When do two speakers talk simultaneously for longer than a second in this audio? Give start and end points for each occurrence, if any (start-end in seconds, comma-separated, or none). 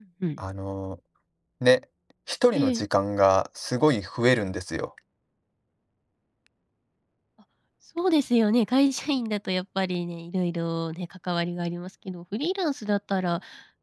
none